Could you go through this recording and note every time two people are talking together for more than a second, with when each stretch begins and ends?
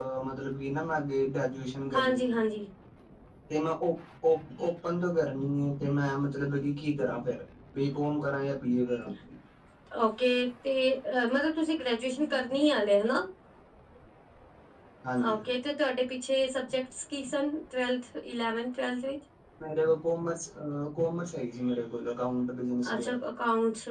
none

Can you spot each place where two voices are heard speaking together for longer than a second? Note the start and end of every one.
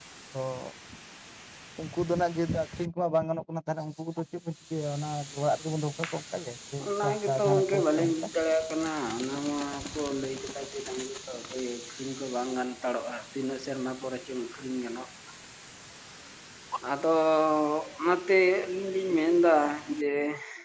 6.9-8.1

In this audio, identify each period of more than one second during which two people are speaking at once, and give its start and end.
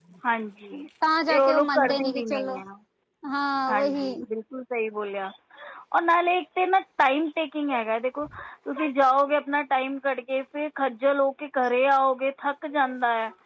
1.3-2.6

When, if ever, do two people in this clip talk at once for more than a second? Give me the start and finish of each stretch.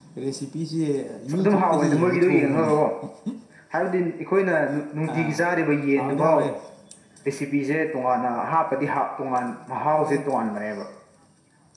1.4-2.7

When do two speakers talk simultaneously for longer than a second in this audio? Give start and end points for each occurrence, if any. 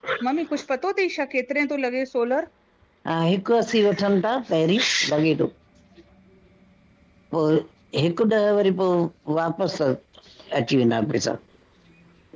none

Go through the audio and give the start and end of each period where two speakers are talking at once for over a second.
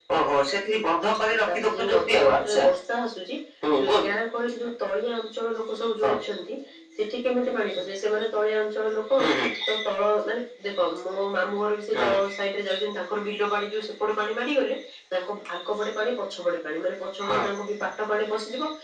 1.3-2.6

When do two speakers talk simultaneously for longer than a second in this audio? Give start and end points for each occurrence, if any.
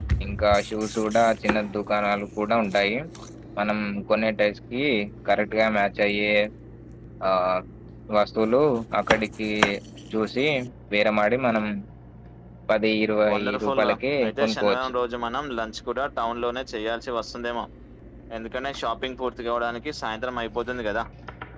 13.3-14.9

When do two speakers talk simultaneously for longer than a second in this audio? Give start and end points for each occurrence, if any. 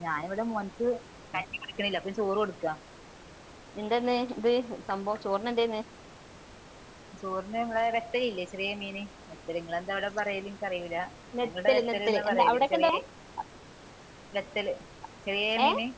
11.4-12.9

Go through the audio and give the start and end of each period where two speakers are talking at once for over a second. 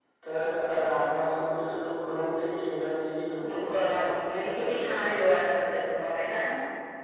3.7-5.3

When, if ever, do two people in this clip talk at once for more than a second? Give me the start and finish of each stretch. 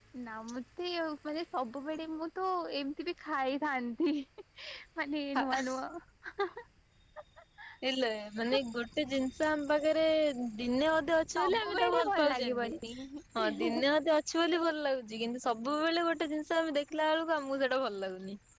11.4-12.7

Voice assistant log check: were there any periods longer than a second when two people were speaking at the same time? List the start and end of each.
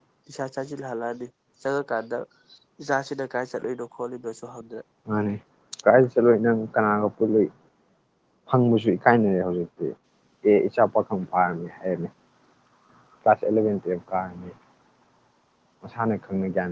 none

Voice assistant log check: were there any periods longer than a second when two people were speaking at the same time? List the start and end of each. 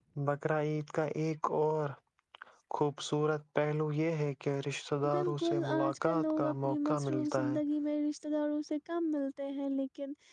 5.1-7.6

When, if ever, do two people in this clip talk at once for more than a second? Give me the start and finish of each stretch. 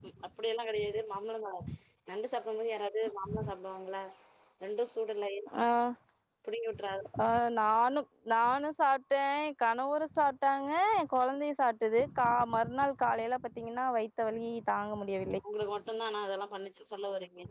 none

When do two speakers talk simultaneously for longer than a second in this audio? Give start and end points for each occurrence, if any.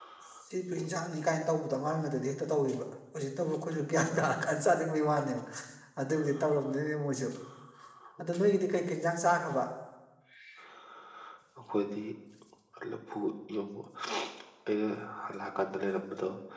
none

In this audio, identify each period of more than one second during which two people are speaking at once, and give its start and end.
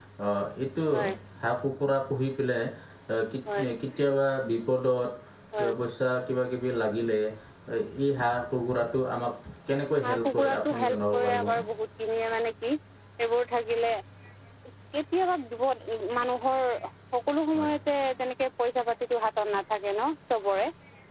10.0-11.6

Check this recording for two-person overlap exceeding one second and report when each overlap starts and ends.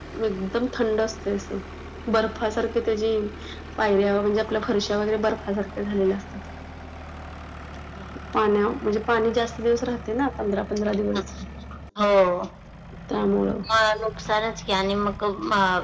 none

